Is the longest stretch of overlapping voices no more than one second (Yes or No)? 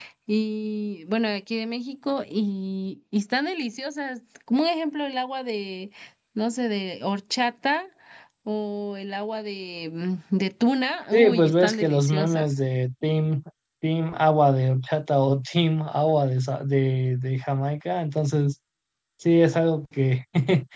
No